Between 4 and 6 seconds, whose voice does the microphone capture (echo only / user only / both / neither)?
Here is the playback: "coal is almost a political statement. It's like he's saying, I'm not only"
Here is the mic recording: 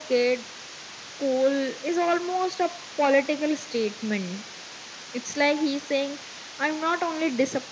echo only